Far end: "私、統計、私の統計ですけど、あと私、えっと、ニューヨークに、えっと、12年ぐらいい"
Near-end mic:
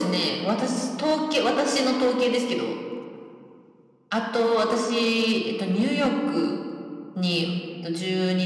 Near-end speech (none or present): none